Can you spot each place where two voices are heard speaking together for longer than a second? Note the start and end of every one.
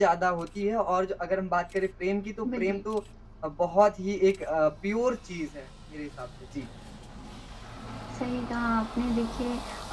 none

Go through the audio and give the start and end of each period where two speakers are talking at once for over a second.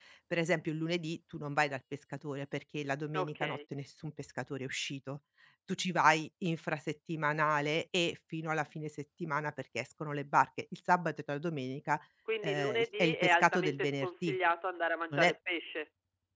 12.4-14.4

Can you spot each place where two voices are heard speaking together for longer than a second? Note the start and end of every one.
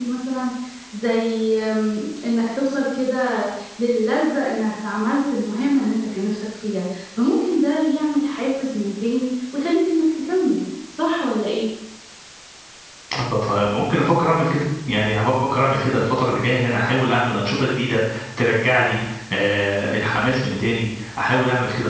none

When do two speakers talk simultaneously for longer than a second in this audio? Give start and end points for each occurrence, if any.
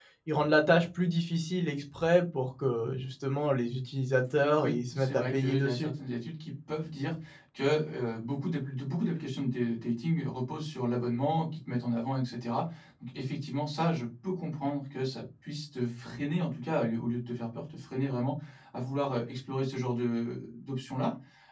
4.6-5.9

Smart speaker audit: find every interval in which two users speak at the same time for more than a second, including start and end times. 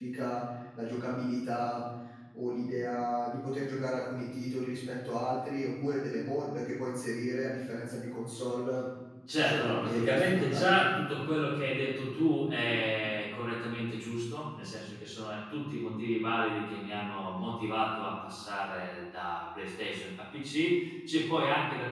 9.4-10.9

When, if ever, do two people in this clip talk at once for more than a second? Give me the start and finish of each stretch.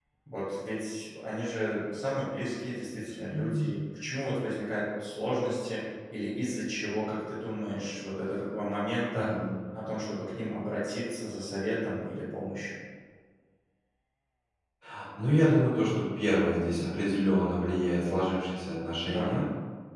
none

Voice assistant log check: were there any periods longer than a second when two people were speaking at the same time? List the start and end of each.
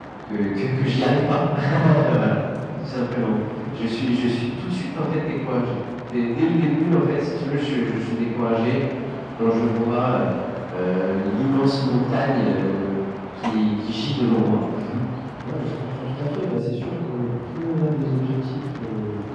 none

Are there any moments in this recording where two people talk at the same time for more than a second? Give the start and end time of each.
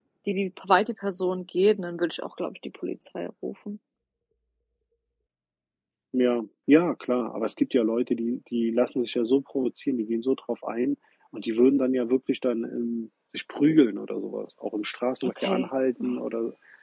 none

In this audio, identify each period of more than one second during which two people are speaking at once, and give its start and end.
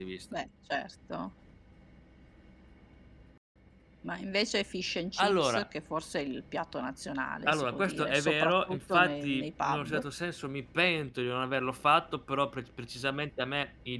7.4-10.0

